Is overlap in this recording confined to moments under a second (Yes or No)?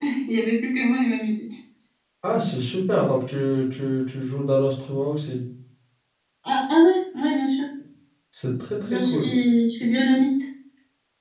Yes